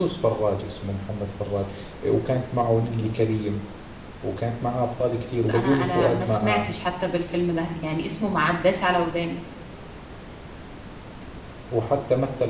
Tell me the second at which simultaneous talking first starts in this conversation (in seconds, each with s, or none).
5.5 s